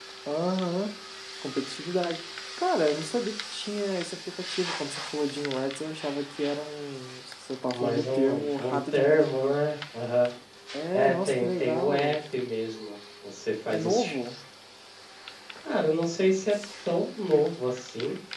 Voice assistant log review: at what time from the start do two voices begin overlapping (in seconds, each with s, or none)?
7.7 s